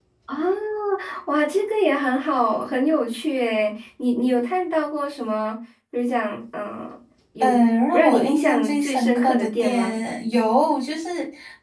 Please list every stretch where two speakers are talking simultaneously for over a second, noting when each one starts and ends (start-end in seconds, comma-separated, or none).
7.9-10.0